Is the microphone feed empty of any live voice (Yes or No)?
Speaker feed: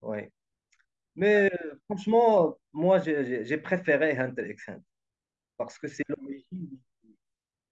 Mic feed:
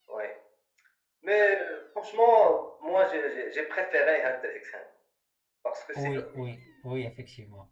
No